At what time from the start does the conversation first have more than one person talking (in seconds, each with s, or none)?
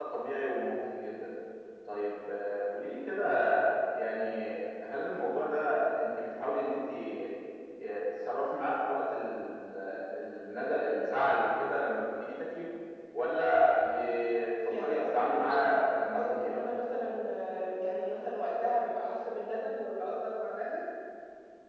14.8 s